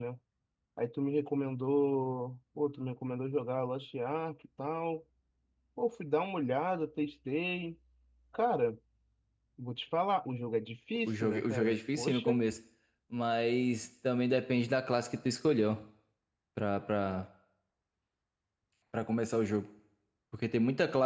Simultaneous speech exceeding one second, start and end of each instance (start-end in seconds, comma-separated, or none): 11.1-12.4